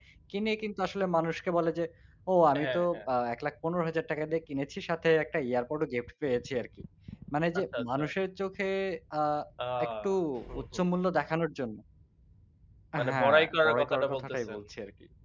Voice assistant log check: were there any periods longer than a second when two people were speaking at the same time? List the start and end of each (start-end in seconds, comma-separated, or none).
13.1-14.6